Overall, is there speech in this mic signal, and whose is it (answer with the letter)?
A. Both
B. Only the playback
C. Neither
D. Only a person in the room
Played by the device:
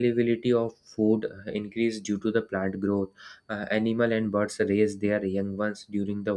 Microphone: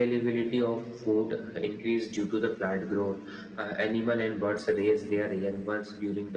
B